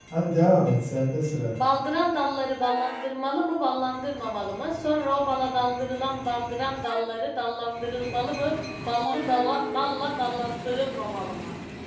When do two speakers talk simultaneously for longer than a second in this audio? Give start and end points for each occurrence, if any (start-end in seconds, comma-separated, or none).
none